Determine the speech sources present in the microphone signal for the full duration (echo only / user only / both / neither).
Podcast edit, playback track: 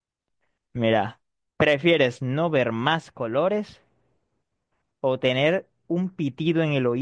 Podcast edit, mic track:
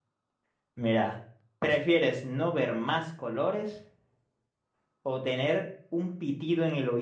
echo only